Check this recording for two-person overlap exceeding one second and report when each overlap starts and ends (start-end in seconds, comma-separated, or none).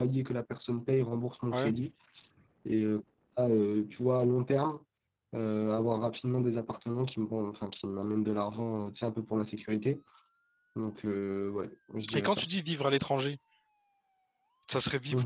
none